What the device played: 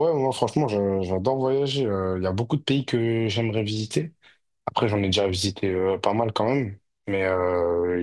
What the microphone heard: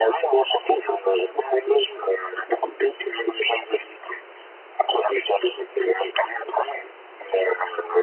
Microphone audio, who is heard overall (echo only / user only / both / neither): echo only